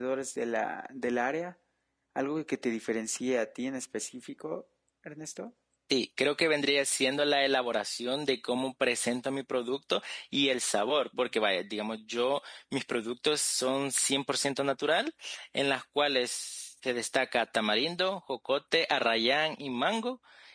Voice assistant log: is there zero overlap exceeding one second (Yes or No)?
Yes